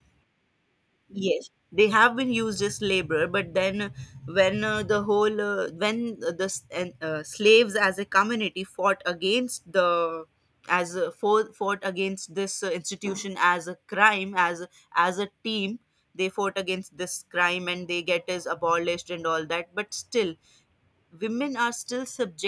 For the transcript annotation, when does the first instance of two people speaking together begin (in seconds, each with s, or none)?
none